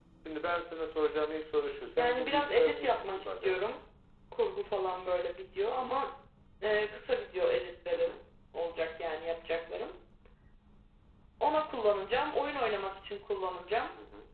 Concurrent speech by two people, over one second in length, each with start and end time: 2.0-3.6

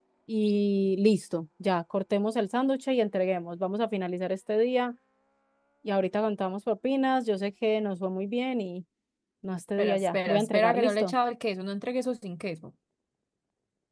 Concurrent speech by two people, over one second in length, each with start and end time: 9.8-11.1

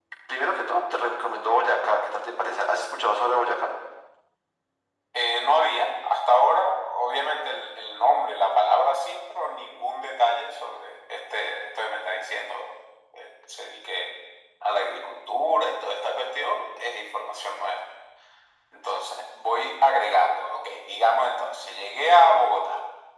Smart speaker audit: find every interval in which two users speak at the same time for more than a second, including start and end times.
none

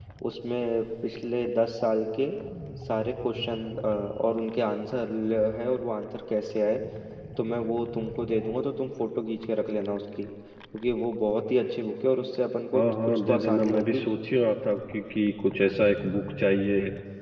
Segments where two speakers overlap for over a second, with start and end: 12.7-14.0

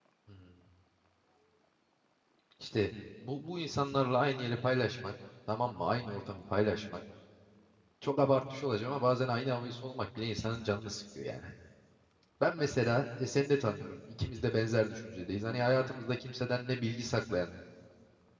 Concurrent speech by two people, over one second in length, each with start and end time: none

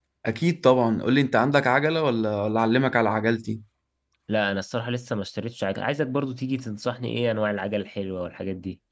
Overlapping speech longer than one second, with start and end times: none

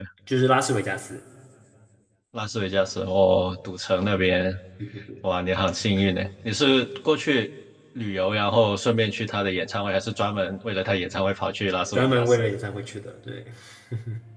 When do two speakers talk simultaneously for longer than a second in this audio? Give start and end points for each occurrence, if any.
none

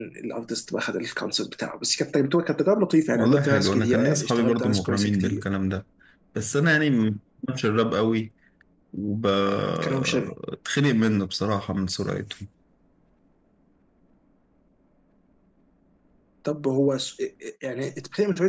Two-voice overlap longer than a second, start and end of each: 3.1-5.4

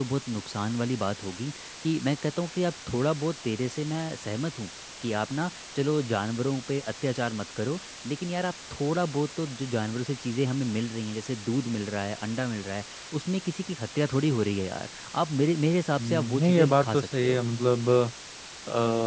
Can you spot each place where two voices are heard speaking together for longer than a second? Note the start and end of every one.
16.0-17.4

